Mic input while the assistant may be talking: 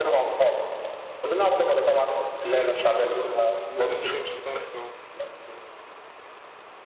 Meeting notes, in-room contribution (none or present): present